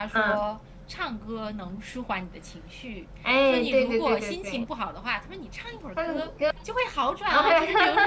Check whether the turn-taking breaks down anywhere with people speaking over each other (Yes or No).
Yes